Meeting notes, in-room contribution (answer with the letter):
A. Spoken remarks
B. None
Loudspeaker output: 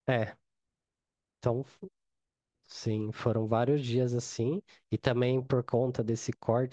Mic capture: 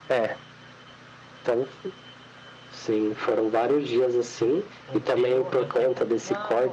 A